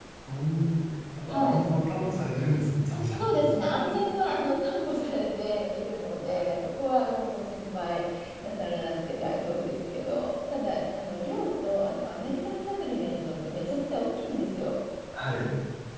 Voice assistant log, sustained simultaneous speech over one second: none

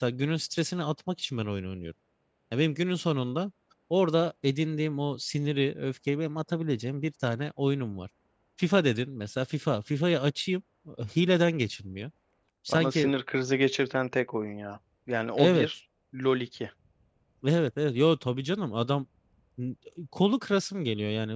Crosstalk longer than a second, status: none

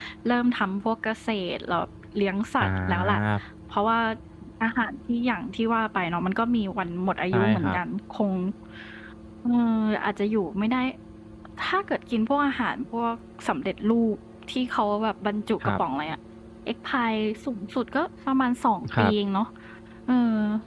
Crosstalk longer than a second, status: none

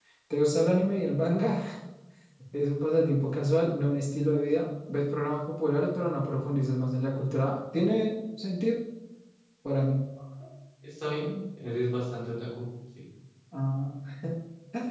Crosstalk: none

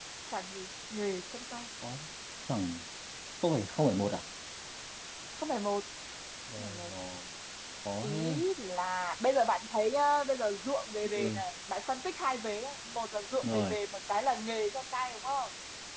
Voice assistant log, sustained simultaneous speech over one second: none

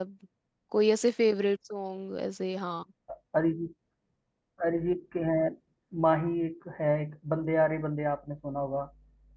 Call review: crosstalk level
none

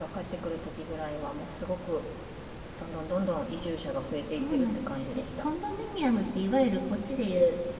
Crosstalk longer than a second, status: present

